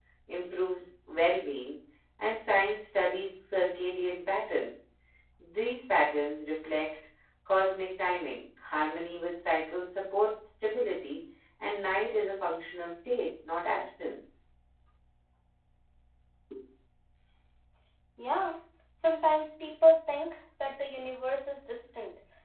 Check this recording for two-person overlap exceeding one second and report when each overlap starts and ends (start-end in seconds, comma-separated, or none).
none